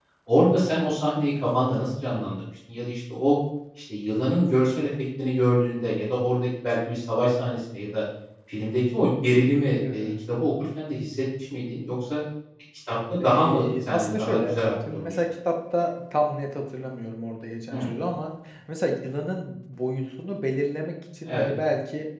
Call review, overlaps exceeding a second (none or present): present